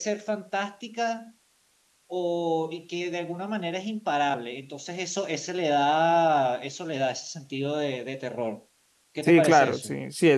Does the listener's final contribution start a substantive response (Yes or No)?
Yes